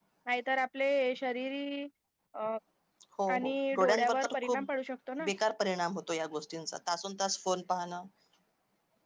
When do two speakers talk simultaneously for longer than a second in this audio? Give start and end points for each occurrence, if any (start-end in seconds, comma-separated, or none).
3.3-4.7